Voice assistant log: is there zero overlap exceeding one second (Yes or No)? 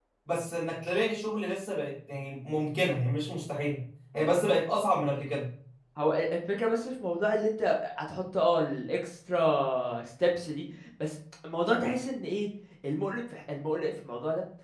Yes